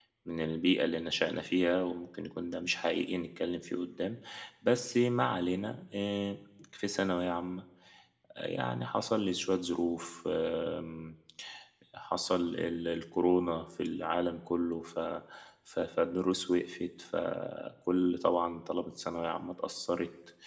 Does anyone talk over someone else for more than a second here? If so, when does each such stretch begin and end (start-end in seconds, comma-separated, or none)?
none